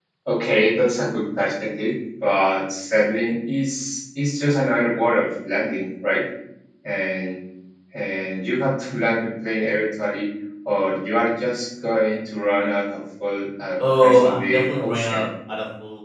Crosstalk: present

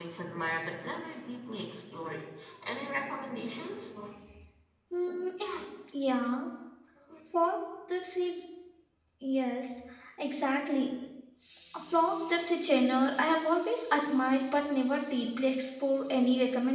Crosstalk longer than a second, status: none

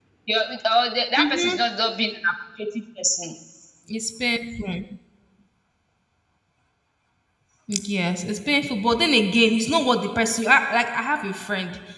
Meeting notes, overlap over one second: none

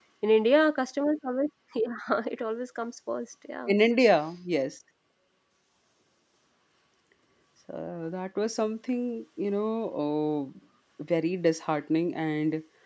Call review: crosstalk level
none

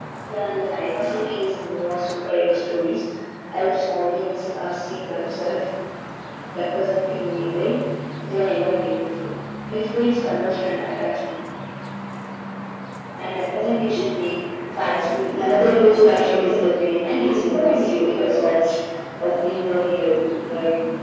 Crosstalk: present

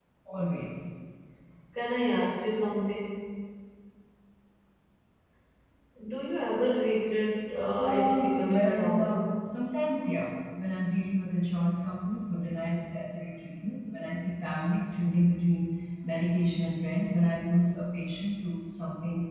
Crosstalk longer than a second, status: present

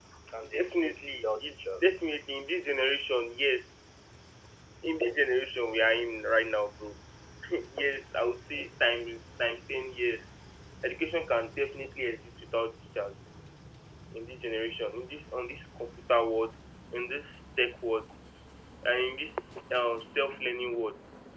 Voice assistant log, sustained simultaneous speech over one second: present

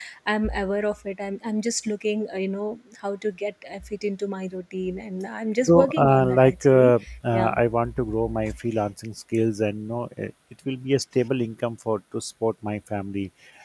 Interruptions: present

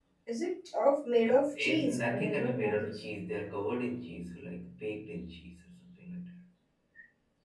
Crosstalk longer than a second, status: present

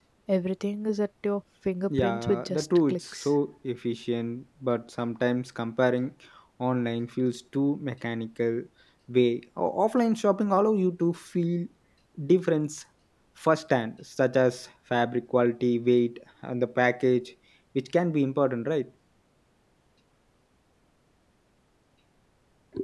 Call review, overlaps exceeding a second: present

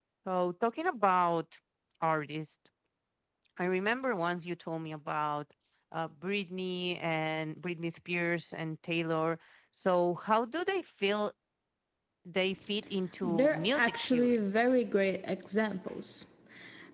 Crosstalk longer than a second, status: present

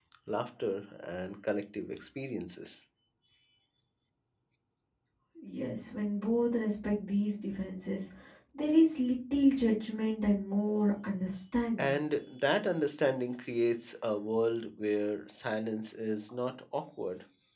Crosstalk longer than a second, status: none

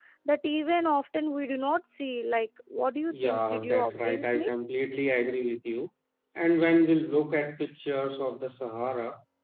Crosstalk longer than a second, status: present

